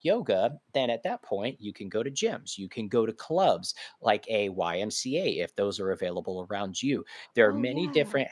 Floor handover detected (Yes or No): No